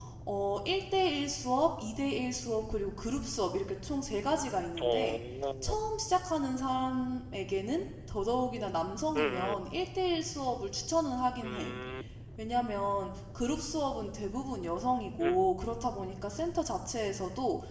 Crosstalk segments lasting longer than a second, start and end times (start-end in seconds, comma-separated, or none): none